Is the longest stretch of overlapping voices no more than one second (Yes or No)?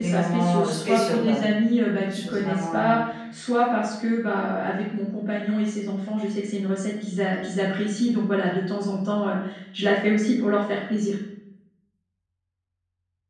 No